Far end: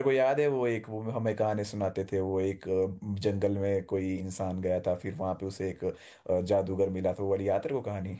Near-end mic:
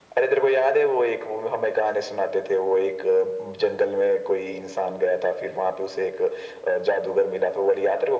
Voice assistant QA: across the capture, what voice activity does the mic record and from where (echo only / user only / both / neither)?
echo only